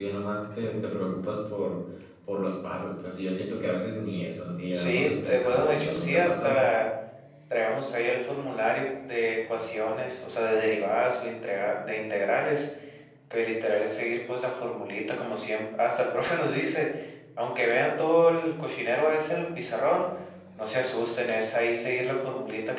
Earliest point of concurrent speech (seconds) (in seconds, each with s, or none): 4.7 s